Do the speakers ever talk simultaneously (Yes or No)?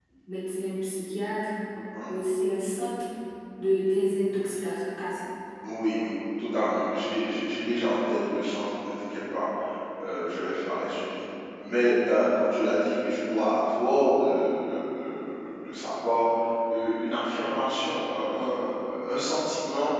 No